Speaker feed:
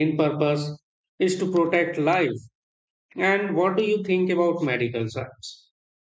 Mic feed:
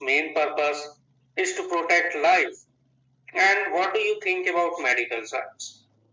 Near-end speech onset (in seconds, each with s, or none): none